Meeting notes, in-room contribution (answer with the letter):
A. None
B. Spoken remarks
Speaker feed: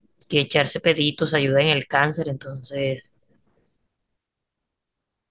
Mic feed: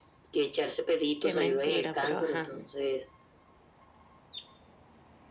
B